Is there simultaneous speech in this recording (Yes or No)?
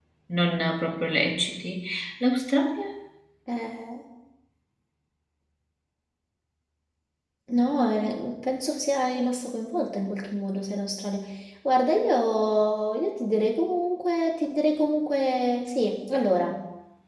No